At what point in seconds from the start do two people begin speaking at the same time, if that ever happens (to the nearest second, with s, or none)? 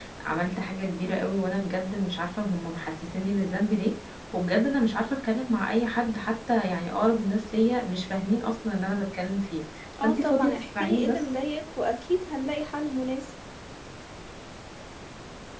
10 s